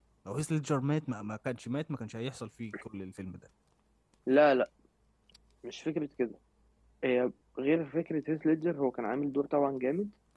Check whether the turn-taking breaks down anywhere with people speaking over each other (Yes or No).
No